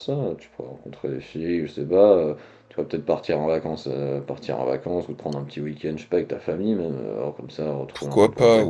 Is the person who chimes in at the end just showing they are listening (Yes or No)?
No